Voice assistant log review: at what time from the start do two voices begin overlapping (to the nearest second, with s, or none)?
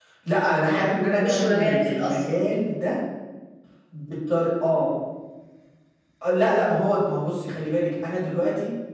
1 s